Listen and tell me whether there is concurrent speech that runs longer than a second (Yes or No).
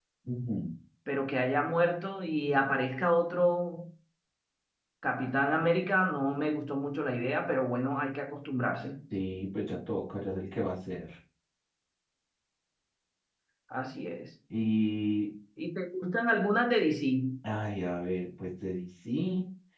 No